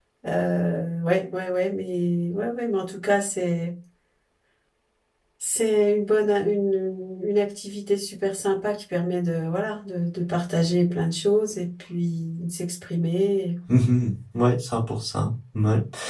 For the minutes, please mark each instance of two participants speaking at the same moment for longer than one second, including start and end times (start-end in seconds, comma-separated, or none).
none